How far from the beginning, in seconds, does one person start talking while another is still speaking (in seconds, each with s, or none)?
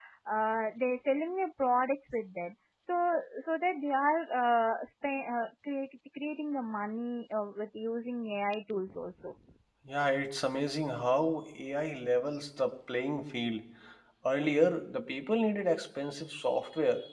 none